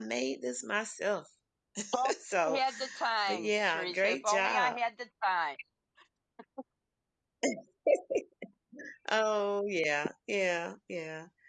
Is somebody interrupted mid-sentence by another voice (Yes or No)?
Yes